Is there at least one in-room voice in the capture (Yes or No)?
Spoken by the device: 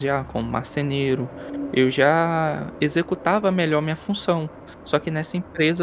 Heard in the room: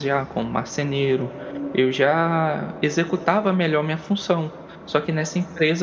No